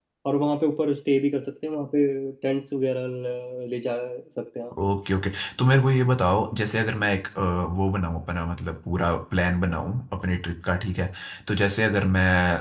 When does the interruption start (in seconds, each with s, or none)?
none